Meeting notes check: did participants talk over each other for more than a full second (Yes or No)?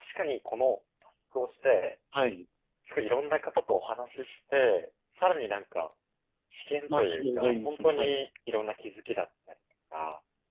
Yes